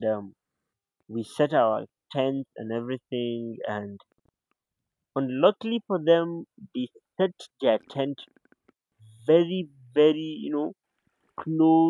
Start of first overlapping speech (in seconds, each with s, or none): none